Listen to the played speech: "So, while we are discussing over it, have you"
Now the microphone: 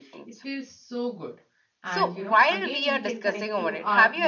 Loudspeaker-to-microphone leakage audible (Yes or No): Yes